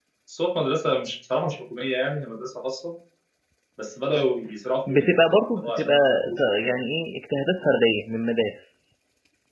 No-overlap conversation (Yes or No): No